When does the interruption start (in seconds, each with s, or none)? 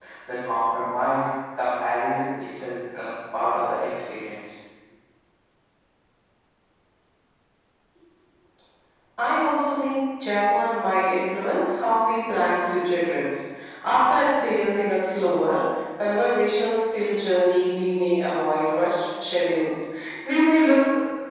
none